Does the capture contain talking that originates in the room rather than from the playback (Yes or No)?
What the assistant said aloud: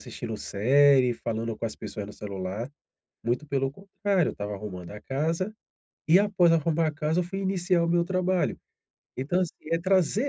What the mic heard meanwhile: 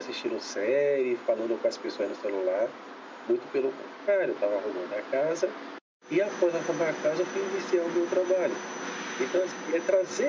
No